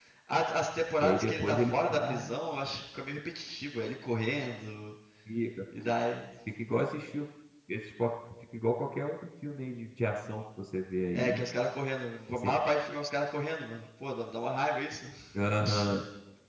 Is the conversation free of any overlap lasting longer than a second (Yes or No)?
No